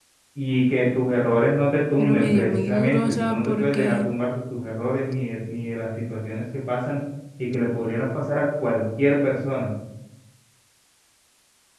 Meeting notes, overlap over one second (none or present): present